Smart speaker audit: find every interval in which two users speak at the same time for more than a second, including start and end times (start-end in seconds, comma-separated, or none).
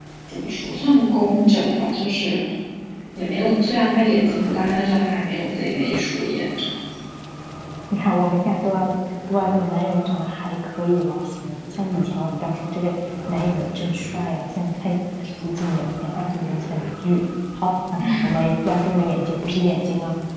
none